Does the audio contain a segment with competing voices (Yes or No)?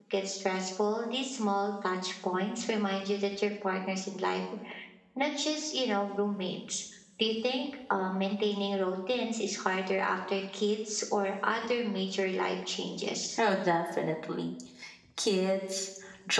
No